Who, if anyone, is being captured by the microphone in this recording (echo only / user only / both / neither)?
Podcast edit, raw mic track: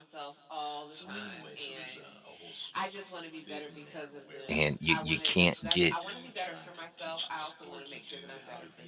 both